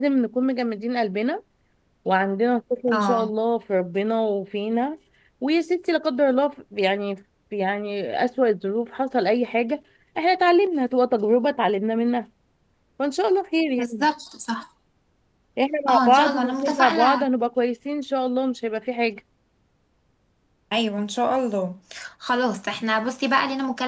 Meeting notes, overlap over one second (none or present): present